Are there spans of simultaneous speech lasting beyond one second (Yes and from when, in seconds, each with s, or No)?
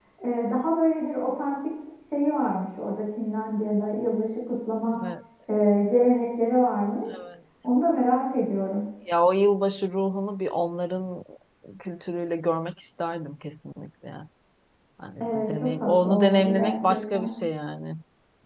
Yes, from 15.2 s